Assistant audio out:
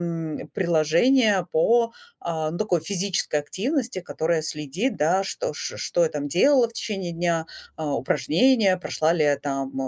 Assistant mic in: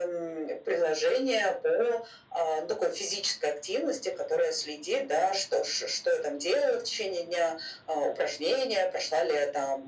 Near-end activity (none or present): none